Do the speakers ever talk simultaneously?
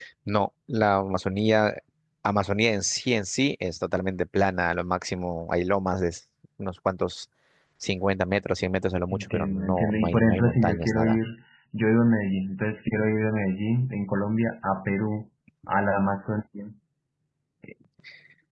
Yes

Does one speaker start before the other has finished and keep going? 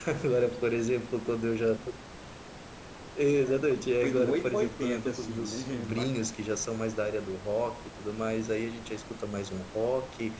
Yes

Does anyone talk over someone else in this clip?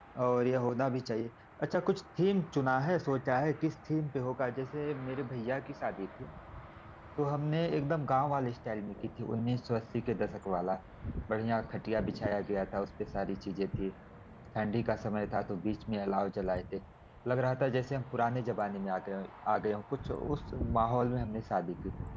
No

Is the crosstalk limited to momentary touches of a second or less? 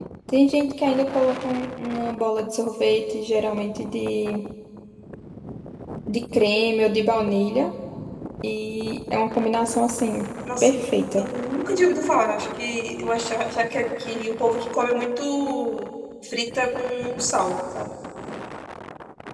Yes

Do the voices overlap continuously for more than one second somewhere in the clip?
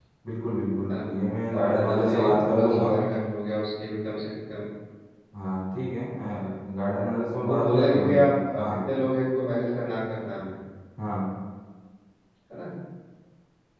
Yes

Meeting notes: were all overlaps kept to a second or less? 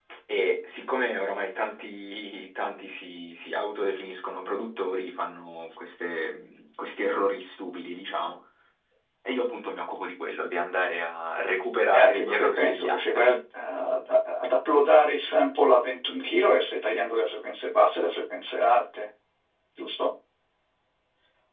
No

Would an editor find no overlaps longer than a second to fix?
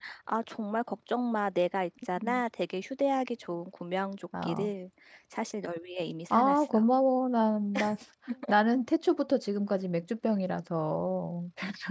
Yes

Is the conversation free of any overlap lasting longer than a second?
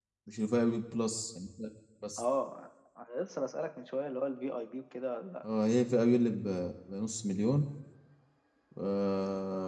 Yes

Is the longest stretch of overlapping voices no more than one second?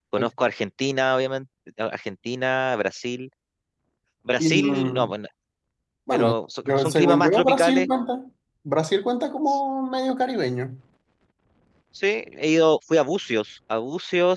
No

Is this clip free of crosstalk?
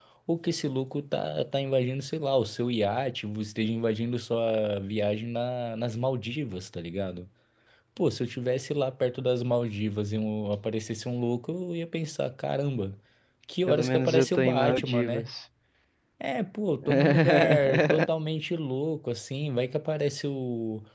No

